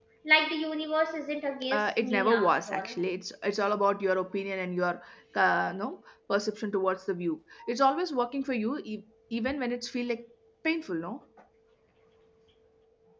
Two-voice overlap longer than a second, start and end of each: 1.7-3.0

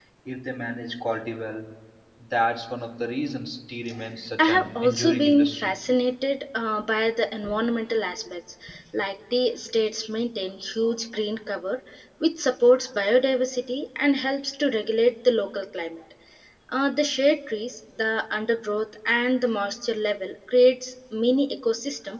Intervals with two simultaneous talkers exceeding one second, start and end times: 4.4-5.7

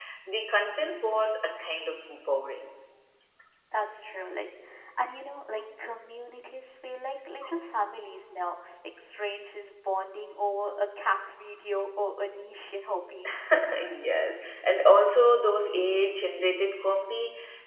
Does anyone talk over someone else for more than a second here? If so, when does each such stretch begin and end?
none

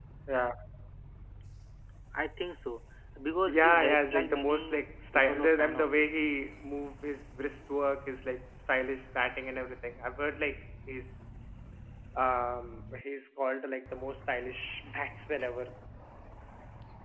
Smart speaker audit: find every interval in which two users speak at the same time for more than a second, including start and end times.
3.5-6.0

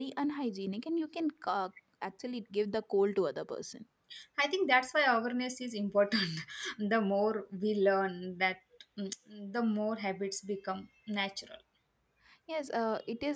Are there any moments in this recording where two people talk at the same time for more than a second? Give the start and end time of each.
none

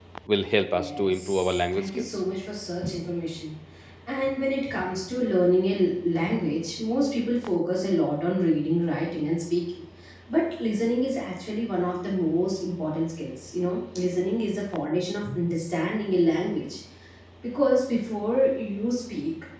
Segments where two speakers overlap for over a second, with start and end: 0.7-2.1

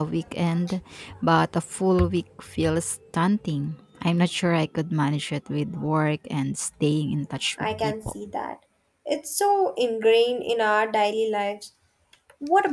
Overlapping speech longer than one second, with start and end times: none

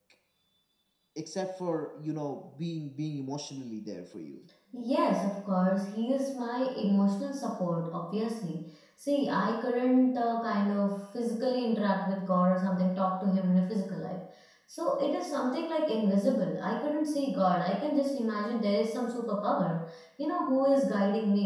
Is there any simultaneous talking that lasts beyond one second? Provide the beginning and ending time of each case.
none

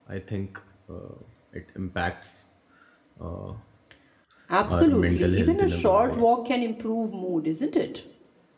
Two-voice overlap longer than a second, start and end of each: 4.6-6.2

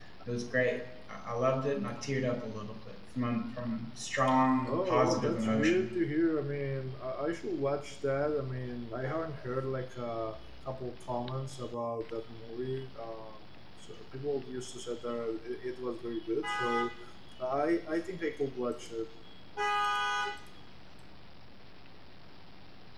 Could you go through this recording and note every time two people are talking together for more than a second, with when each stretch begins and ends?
4.6-5.9

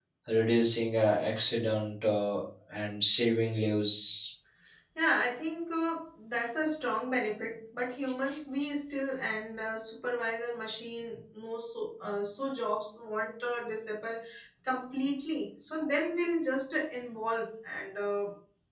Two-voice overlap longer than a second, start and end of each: none

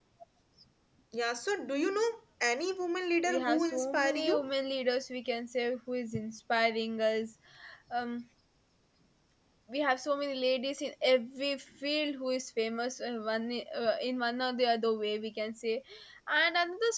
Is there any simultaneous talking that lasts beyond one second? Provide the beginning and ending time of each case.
3.3-4.5

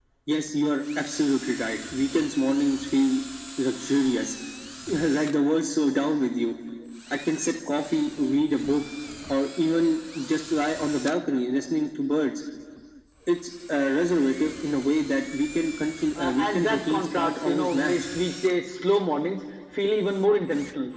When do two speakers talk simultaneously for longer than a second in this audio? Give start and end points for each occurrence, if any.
16.2-17.9

